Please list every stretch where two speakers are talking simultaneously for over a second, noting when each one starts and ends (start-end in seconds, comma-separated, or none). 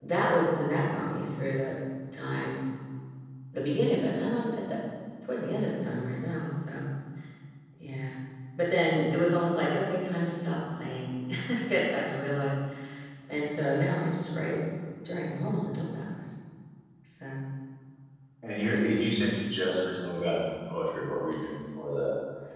none